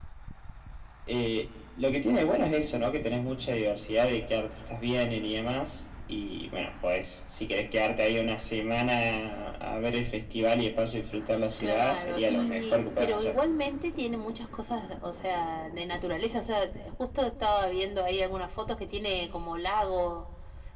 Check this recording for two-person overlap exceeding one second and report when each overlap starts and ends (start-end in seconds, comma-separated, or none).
11.6-13.4